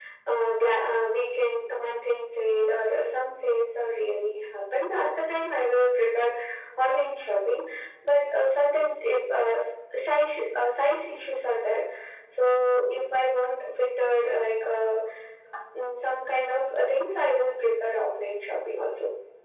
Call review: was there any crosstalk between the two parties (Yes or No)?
No